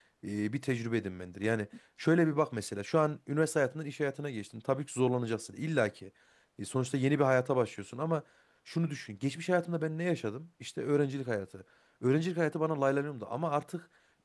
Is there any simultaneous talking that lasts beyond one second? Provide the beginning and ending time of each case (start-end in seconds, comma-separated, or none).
none